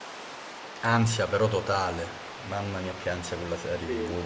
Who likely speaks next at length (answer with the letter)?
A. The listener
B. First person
A